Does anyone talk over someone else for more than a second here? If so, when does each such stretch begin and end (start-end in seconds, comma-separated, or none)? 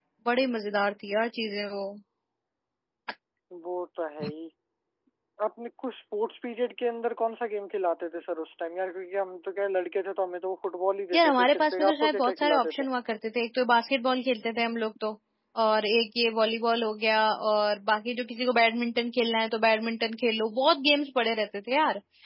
11.1-12.9